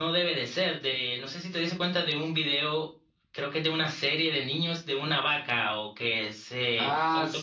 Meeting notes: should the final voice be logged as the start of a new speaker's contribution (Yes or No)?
Yes